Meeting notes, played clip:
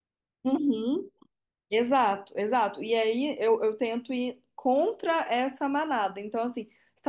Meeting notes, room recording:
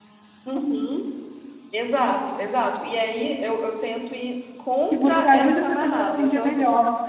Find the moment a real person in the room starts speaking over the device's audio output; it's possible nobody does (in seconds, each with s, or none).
4.9 s